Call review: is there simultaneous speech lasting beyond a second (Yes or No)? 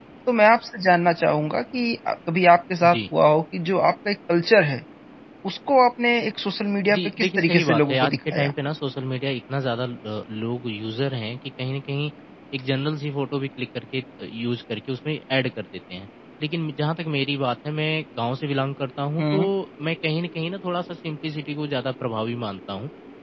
Yes